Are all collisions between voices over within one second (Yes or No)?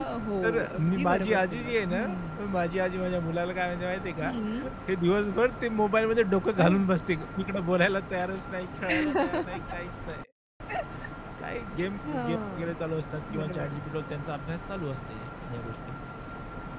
No